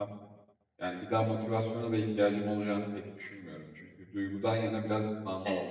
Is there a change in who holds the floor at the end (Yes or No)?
No